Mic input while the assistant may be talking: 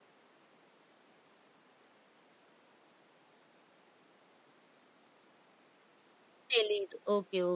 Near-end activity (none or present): present